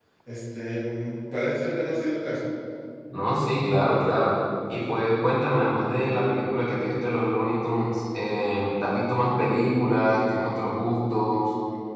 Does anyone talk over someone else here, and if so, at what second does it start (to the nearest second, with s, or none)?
none